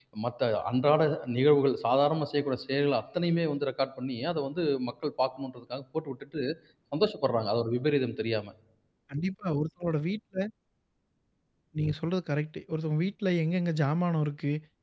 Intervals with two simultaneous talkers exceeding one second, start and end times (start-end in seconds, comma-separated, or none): none